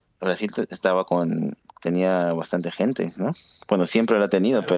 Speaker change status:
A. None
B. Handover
B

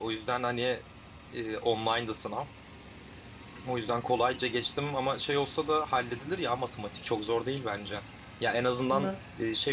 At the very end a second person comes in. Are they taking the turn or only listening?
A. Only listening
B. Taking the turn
A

